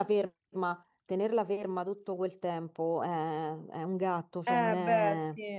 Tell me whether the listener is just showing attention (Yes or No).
No